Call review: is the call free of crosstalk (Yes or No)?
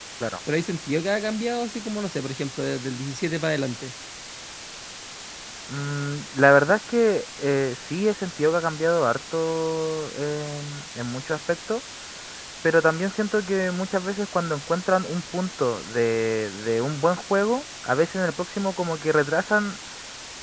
Yes